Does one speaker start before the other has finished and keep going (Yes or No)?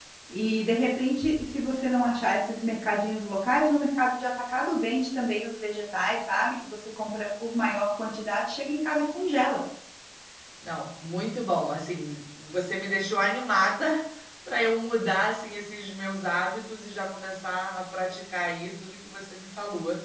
No